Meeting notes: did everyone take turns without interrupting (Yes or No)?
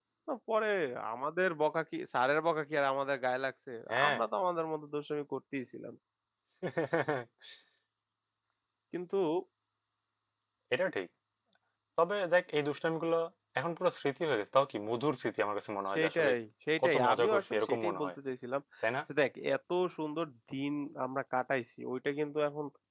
No